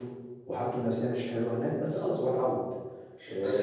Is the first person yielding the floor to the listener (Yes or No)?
Yes